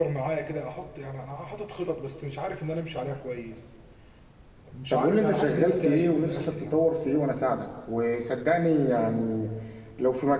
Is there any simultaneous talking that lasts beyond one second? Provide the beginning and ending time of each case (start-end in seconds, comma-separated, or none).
4.9-6.9